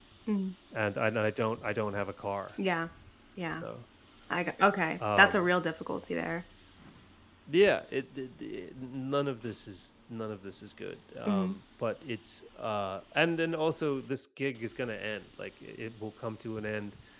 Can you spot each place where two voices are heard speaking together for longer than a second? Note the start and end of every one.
none

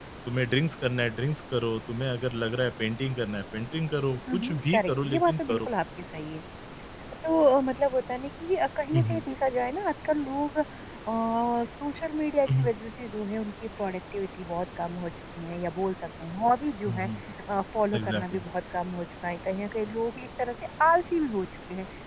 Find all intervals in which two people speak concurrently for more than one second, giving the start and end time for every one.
4.3-5.7

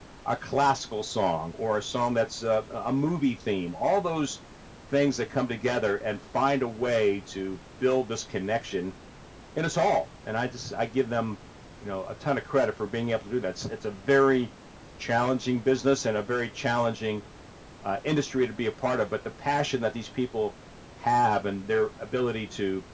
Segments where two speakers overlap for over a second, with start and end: none

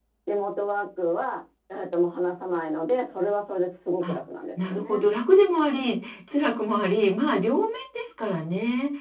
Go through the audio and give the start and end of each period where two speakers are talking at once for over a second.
none

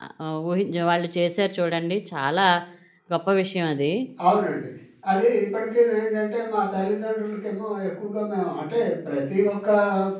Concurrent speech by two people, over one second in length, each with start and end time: none

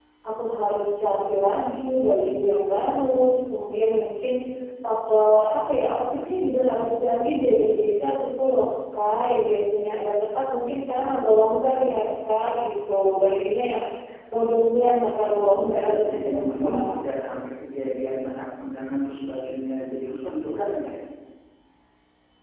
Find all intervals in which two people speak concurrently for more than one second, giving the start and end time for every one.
15.2-16.9

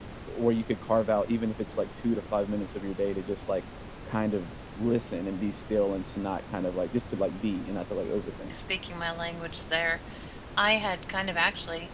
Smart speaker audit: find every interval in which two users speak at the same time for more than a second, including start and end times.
none

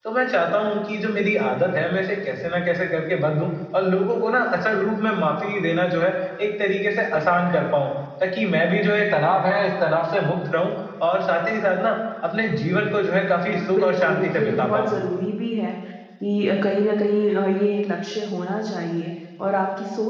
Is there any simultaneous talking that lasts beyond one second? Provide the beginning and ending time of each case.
13.7-14.9

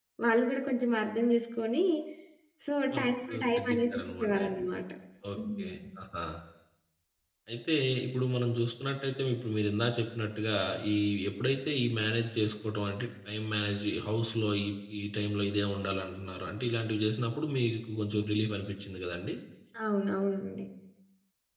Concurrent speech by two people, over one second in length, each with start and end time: 2.9-4.5

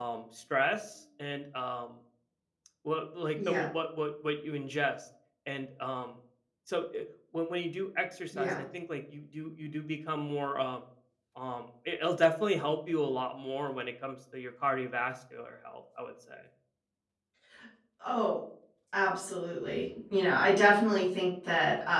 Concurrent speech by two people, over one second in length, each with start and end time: none

